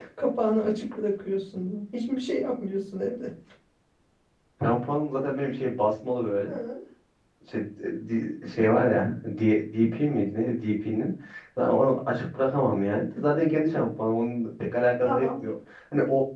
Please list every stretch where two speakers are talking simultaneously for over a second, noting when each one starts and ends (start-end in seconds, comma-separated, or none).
none